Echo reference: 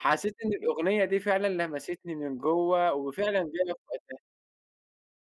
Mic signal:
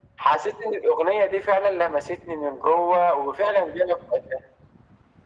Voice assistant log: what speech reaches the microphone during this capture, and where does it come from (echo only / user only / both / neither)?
echo only